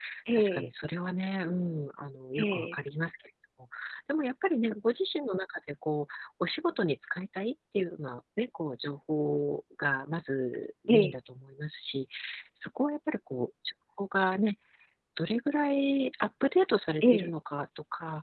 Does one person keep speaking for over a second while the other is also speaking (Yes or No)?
No